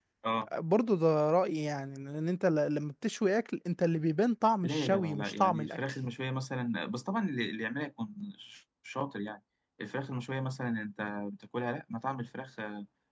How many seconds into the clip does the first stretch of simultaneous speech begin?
4.6 s

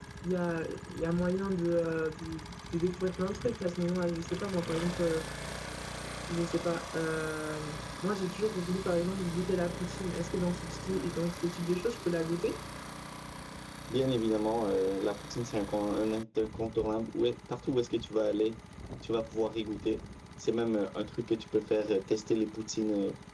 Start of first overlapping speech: none

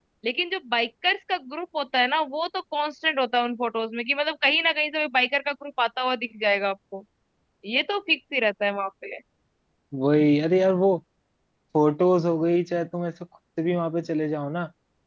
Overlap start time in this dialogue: none

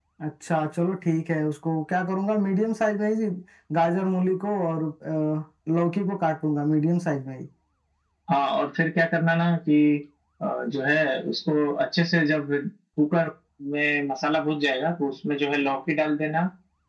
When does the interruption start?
none

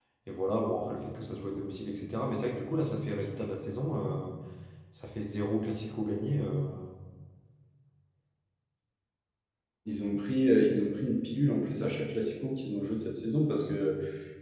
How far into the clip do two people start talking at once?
none

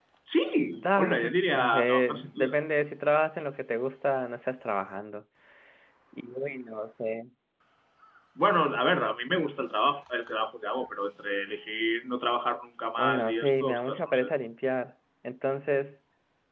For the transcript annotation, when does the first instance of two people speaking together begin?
0.7 s

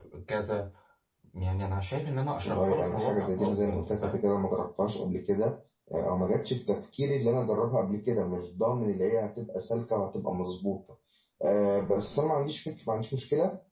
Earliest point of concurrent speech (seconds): 2.4 s

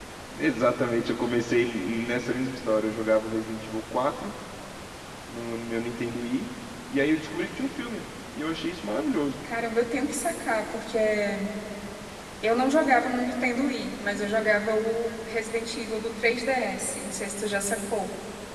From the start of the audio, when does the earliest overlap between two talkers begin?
none

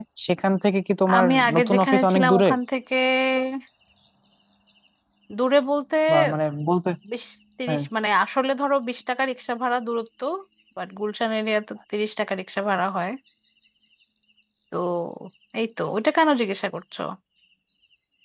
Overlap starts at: 1.2 s

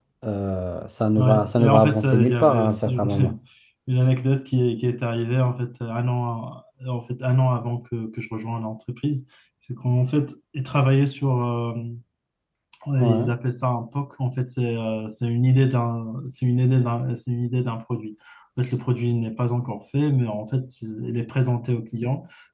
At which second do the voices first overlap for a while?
1.2 s

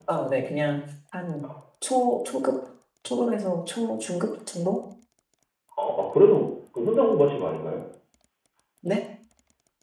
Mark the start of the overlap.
none

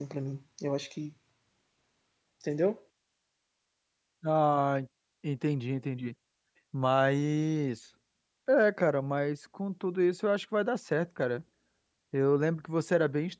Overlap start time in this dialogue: none

